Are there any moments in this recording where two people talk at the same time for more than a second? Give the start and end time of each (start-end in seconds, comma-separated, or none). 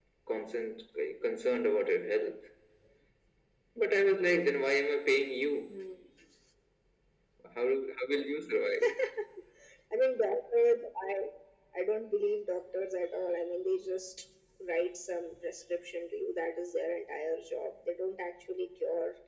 none